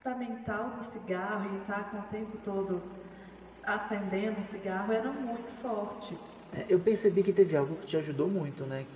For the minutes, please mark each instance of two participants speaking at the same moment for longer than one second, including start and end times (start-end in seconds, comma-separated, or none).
none